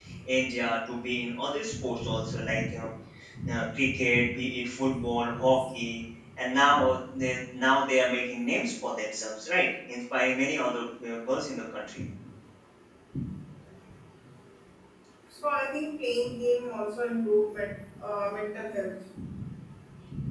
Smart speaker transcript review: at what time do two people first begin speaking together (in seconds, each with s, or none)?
none